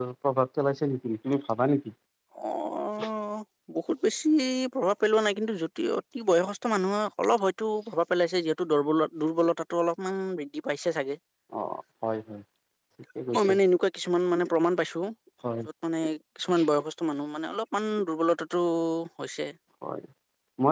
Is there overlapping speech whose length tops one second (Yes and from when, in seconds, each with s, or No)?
No